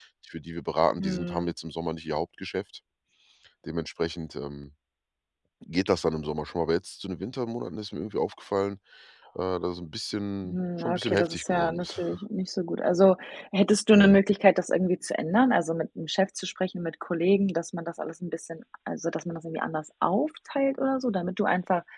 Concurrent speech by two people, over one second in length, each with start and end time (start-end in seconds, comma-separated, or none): 10.4-12.0